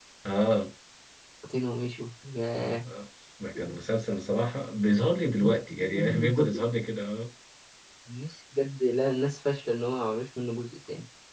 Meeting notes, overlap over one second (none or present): present